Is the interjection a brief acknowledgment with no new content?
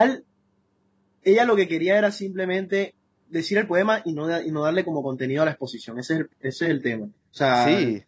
Yes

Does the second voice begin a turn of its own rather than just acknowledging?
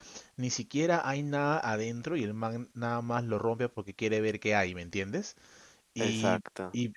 No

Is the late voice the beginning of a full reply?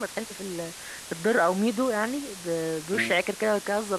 No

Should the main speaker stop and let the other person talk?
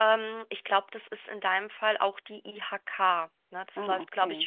No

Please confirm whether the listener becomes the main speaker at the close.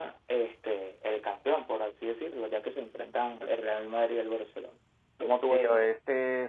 Yes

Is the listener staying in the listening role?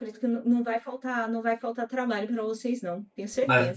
No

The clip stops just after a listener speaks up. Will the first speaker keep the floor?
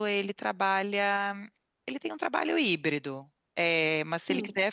Yes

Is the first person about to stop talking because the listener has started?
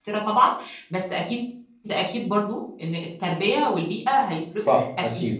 Yes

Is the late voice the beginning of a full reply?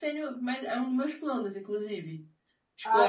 Yes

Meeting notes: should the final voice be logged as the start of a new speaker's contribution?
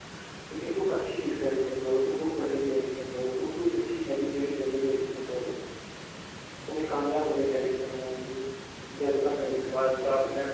Yes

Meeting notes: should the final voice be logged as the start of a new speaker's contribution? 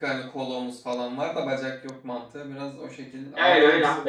Yes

